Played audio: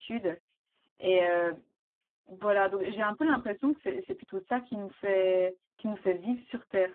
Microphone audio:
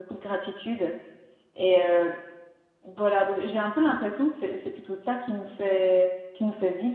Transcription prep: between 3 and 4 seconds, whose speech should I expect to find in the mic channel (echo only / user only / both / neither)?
echo only